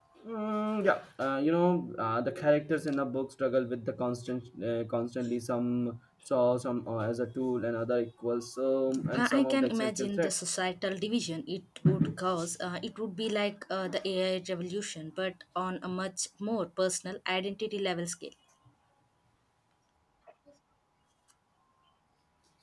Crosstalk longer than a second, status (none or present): present